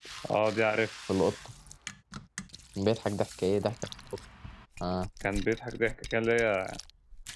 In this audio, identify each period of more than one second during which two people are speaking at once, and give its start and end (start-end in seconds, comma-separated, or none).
none